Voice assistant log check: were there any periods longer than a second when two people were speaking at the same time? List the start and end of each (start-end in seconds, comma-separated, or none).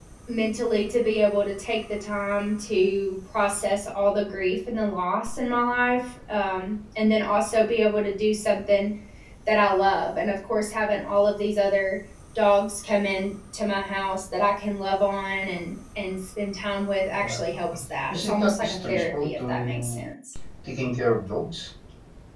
18.1-20.0